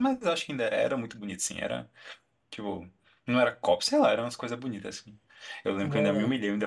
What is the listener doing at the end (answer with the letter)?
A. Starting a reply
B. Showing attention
B